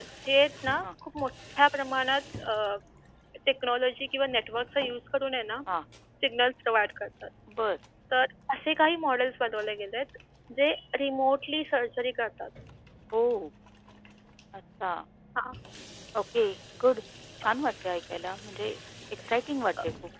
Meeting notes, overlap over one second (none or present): none